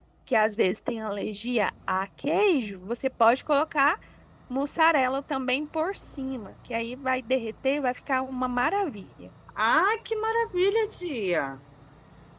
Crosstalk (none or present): none